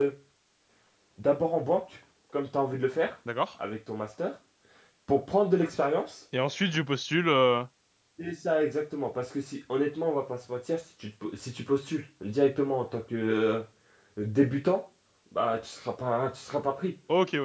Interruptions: none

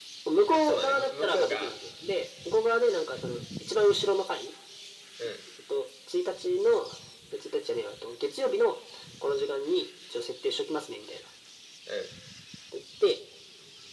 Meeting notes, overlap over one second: present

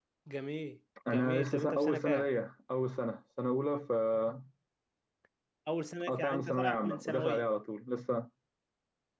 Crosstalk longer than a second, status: present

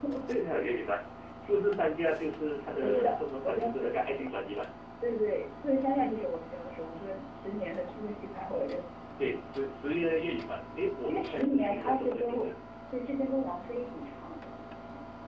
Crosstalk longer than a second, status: present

